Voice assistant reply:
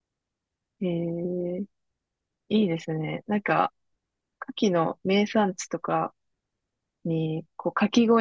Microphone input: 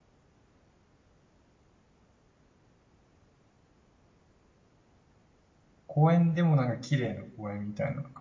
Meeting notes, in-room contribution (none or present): present